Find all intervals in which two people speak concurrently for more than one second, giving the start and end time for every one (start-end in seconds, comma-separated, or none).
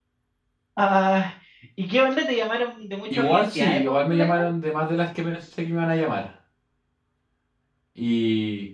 3.1-4.5